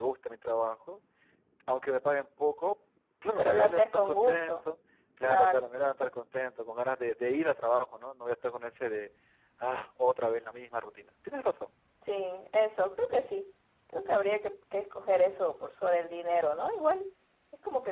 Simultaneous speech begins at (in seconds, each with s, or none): 3.4 s